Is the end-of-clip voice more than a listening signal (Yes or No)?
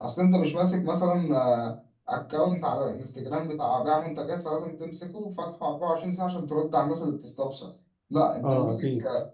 No